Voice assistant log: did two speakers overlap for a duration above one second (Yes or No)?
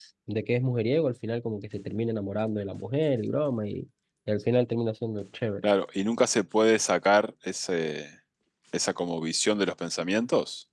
No